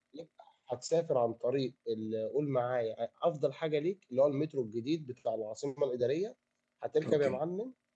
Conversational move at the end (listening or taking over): listening